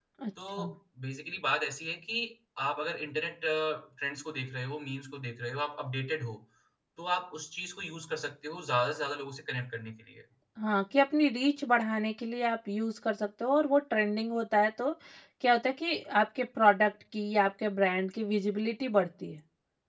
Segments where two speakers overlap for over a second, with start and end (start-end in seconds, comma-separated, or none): none